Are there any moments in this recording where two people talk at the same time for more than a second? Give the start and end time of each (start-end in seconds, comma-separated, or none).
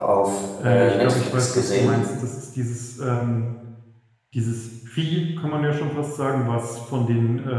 0.6-2.0